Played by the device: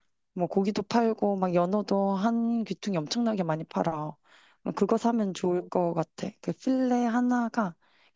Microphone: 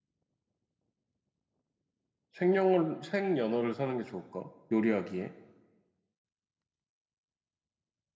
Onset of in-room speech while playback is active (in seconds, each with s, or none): 2.3 s